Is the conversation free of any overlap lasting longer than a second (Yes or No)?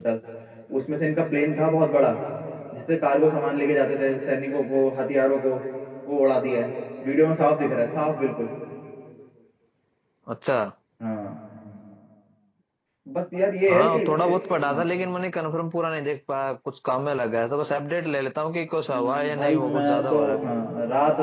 No